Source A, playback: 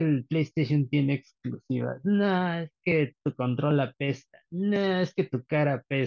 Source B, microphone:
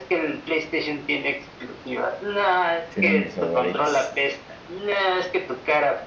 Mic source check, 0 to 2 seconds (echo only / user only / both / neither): echo only